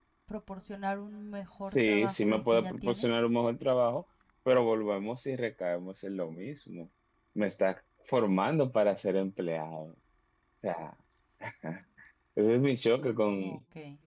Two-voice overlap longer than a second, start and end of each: 1.7-3.1

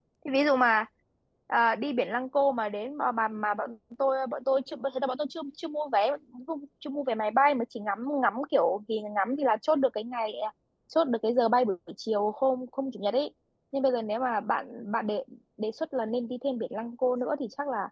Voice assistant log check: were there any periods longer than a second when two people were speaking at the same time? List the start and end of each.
none

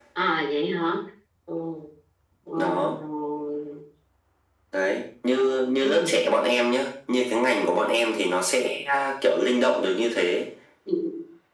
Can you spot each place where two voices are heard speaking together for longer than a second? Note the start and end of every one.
none

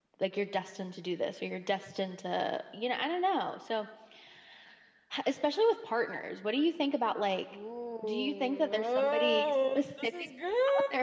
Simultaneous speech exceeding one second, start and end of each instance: 8.0-10.1

